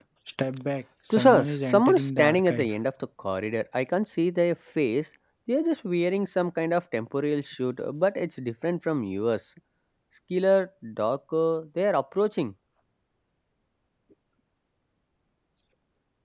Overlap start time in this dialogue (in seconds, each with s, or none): 1.1 s